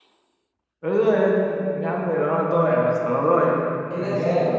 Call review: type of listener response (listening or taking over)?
taking over